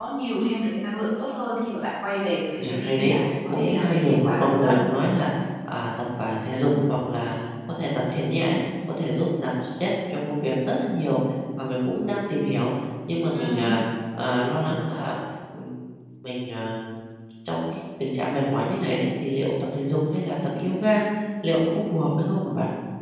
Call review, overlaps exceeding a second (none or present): present